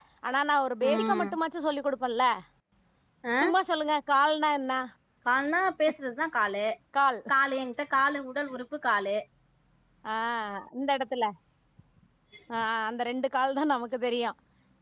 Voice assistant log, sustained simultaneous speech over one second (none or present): none